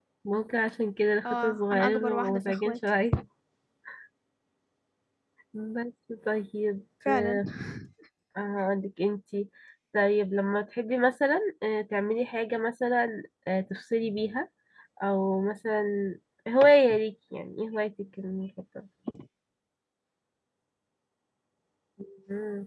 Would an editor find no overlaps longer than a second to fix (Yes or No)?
No